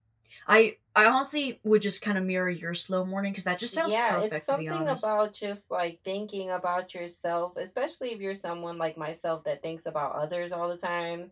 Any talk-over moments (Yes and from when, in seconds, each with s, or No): Yes, from 3.7 s